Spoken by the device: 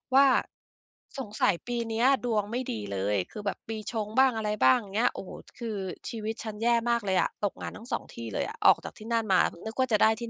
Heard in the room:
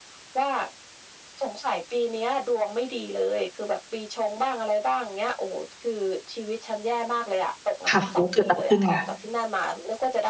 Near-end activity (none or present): present